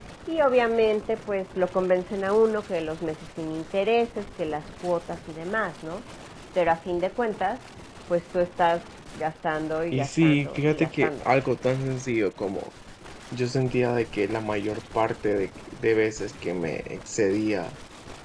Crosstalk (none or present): present